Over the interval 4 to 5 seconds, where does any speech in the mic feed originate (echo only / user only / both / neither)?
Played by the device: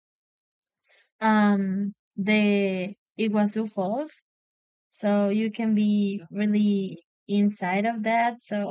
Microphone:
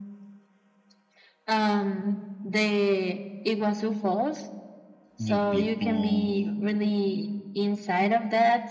echo only